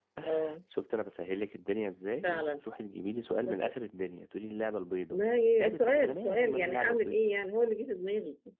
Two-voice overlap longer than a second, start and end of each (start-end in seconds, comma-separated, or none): 5.7-7.2